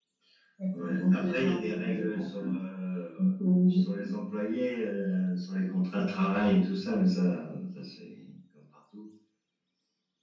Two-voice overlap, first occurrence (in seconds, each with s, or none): 0.8 s